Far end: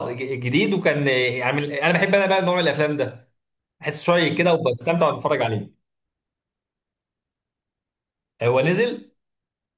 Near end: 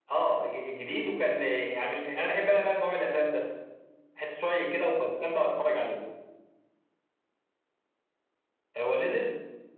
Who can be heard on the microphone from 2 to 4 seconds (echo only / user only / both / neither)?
echo only